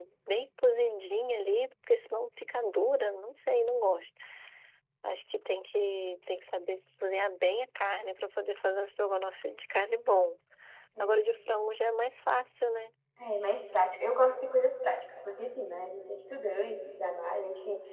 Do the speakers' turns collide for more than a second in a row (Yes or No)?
No